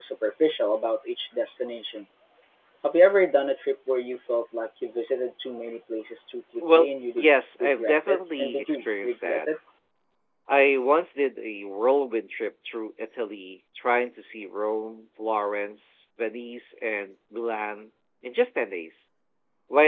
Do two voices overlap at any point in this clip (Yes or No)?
Yes